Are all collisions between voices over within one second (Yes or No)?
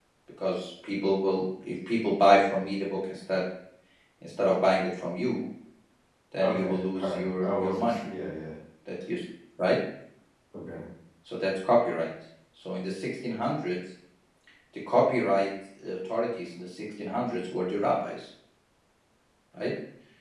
No